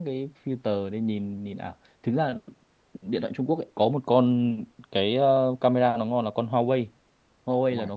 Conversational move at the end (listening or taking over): listening